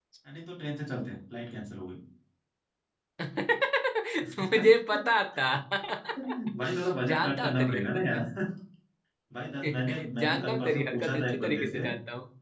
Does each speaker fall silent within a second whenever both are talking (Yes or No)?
No